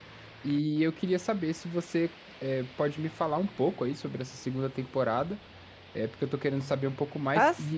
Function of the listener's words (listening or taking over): listening